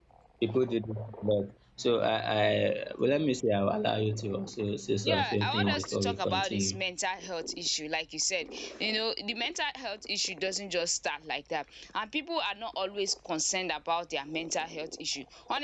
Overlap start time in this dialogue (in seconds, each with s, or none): 5.0 s